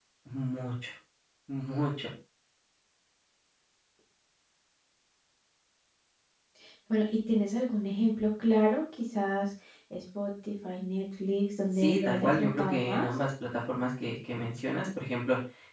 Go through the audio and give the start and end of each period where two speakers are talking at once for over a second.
11.8-13.1

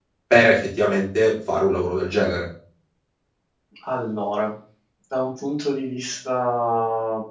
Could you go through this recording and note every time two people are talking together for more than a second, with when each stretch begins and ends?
none

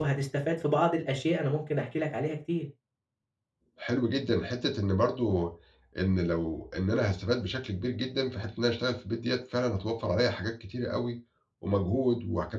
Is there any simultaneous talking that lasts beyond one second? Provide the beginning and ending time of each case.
none

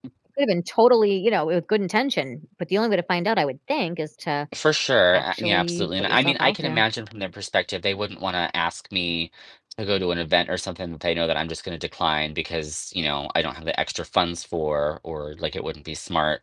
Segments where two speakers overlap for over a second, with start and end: 5.1-6.8

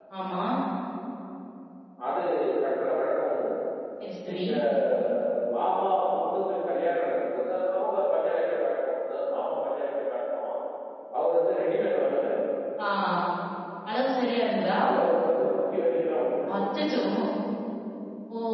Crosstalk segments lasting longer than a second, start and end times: none

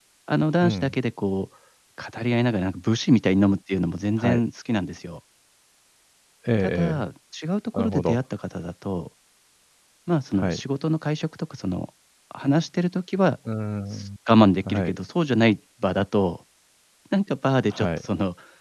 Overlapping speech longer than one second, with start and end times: none

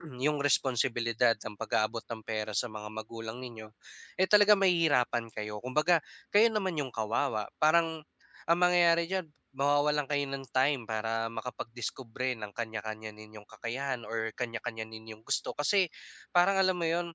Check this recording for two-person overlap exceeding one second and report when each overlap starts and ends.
none

